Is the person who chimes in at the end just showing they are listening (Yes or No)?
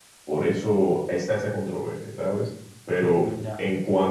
Yes